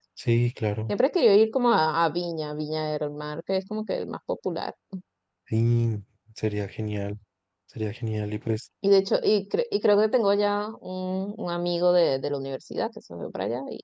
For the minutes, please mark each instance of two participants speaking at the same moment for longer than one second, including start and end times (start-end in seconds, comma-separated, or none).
none